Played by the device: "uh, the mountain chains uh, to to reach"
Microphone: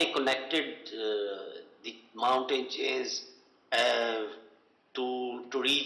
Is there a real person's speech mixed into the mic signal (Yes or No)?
No